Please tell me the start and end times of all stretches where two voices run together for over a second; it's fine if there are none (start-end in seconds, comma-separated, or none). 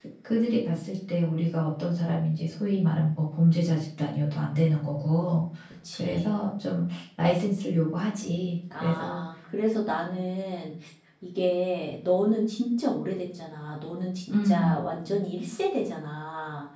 none